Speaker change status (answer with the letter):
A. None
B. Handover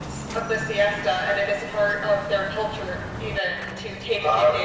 B